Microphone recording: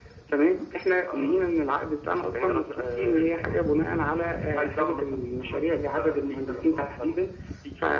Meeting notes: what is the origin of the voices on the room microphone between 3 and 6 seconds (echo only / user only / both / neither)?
echo only